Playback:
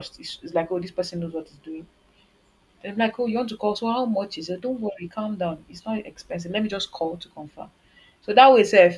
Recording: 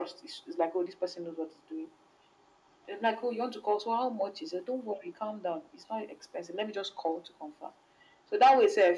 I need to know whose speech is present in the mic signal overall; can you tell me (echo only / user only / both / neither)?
echo only